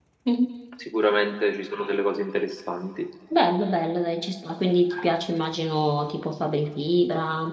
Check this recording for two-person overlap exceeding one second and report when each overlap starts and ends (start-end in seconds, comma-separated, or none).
none